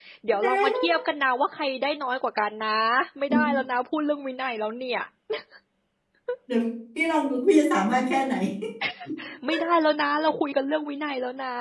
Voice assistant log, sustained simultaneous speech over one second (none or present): none